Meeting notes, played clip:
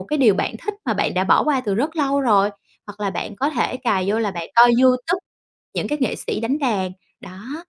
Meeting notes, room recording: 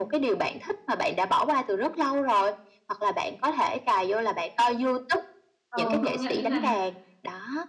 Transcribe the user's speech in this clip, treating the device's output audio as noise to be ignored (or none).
Ờ, công nhận đấy bạn ạ.